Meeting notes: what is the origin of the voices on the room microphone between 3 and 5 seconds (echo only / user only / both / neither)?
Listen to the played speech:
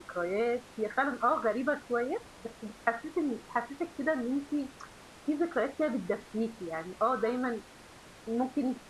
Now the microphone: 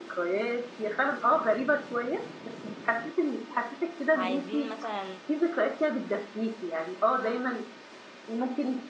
both